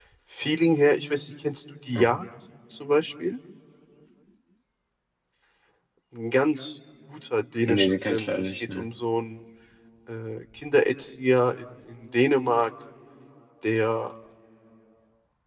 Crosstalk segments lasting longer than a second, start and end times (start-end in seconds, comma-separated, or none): 7.7-8.9